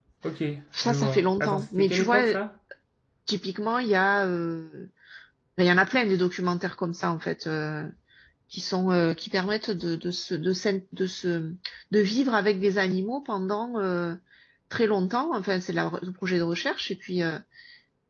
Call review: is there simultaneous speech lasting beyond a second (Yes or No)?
Yes